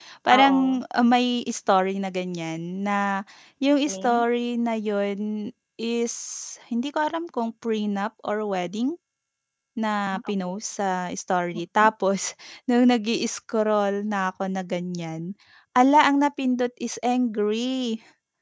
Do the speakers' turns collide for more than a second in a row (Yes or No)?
No